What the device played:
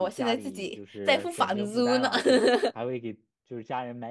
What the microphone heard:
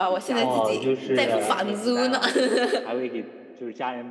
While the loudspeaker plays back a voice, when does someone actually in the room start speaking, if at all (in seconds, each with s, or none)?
0.4 s